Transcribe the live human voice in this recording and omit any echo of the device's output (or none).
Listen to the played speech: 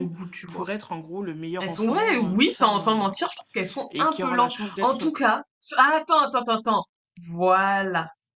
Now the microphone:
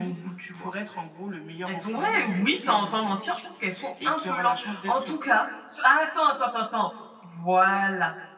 none